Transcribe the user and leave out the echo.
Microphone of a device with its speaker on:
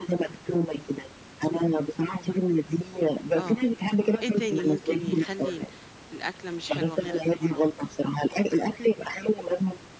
آه آه، إيه تاني ممكن يخلّي ال الأكلة مش حلوة غير البُهارات؟

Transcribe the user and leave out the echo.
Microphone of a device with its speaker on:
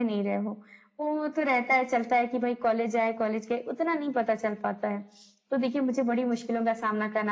none

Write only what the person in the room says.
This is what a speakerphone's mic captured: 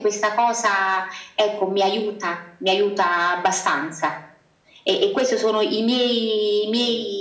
none

